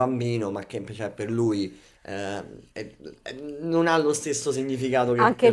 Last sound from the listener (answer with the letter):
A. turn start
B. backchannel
A